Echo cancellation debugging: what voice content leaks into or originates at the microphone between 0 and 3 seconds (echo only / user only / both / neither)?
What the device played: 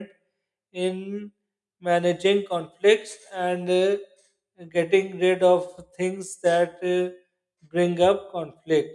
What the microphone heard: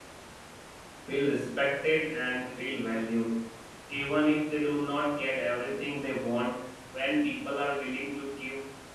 user only